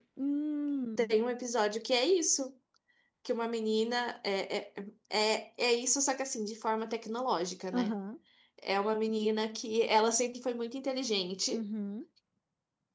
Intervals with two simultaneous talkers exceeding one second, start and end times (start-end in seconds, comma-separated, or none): none